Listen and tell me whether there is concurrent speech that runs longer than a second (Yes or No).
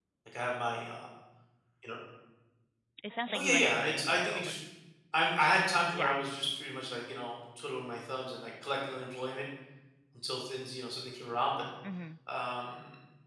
Yes